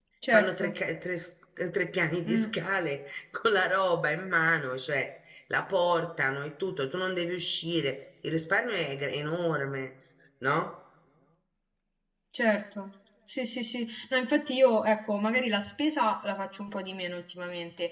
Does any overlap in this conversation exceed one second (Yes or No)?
No